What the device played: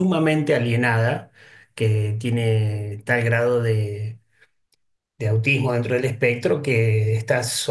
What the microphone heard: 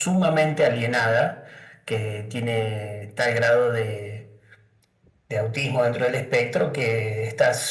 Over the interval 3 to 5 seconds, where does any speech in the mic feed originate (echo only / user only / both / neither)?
echo only